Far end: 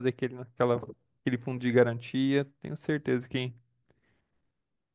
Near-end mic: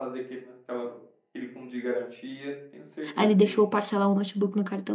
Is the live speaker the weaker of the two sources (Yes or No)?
No